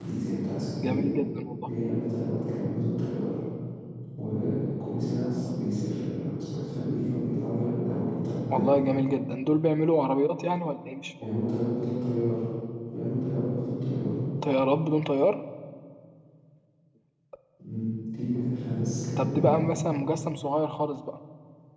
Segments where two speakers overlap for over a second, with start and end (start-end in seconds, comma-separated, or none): none